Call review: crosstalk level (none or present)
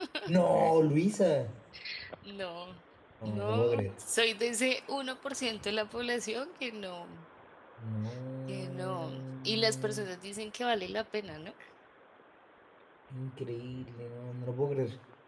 present